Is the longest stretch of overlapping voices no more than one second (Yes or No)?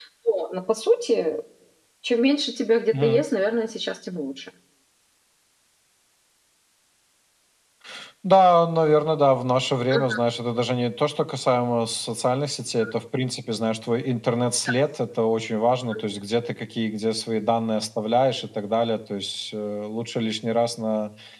Yes